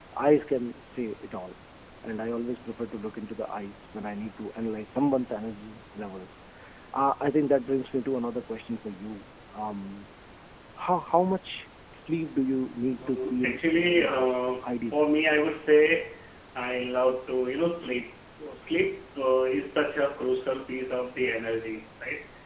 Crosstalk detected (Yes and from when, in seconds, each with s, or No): Yes, from 12.9 s